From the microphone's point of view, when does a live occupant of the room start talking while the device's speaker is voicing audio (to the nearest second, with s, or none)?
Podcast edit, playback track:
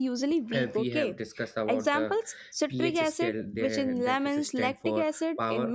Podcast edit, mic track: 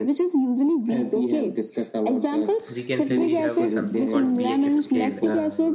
3 s